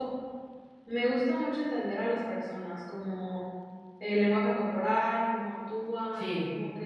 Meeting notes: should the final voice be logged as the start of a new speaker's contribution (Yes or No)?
No